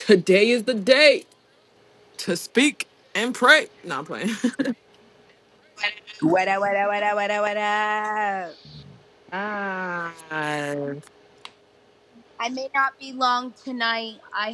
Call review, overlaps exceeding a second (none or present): none